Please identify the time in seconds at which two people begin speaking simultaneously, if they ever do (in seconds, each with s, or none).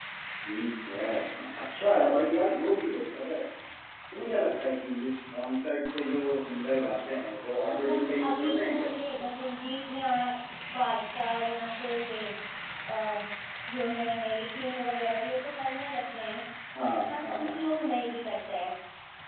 7.7 s